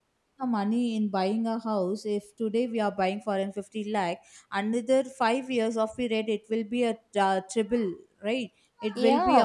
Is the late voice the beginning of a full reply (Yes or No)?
Yes